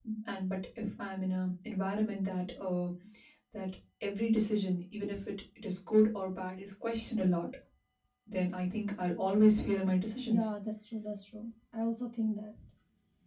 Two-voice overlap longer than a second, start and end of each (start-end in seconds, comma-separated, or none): none